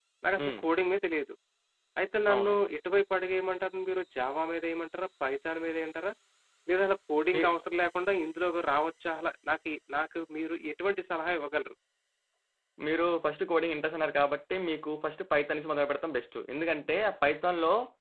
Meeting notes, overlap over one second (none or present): none